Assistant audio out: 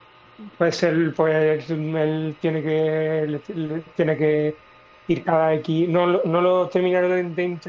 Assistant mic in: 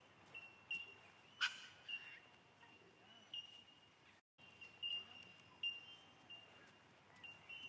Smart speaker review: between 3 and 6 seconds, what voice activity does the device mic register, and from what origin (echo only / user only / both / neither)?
neither